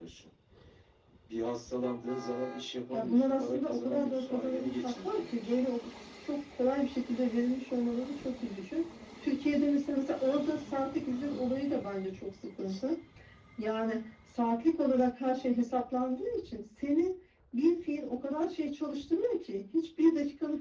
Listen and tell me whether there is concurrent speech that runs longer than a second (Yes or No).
Yes